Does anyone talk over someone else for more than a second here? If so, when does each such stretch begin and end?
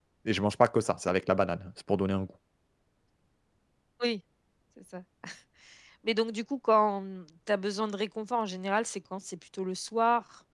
none

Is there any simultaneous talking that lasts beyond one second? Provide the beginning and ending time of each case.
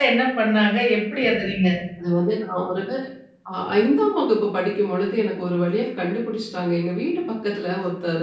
none

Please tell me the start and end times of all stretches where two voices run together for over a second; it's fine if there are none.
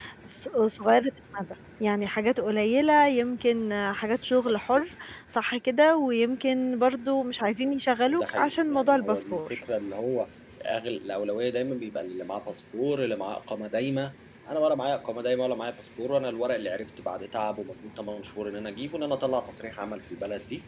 8.1-9.6

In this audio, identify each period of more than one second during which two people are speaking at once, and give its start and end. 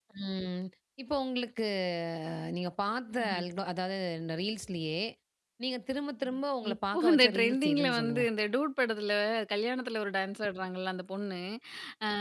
6.7-8.2

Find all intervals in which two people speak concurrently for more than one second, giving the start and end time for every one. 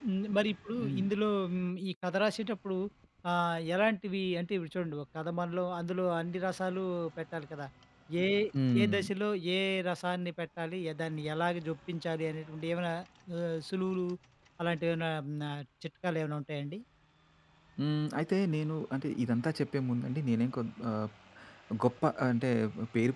none

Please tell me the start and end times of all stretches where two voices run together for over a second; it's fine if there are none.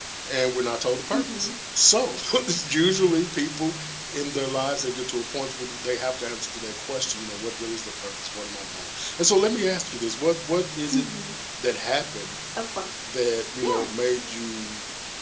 none

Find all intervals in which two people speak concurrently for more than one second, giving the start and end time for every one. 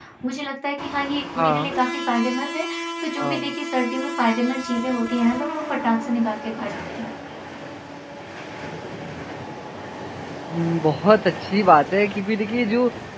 none

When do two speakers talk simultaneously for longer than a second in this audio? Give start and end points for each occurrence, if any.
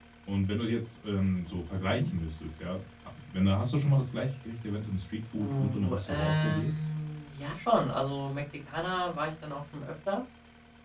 5.3-6.7

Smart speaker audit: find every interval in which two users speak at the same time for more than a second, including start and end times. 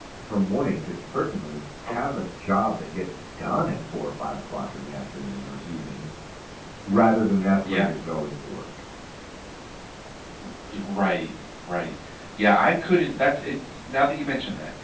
none

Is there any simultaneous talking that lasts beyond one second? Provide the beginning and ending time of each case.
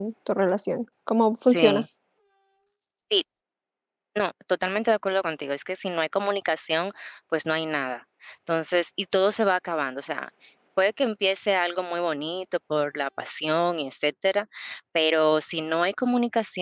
none

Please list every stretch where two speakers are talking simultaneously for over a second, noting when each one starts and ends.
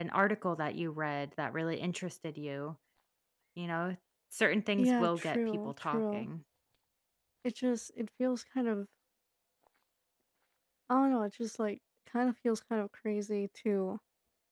4.8-6.3

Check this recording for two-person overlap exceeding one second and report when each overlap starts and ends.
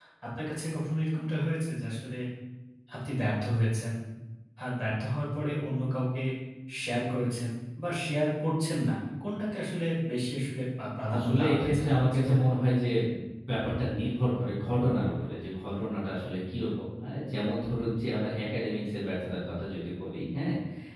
11.1-12.4

